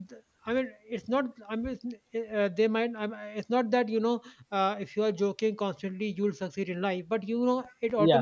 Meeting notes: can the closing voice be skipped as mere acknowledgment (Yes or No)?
Yes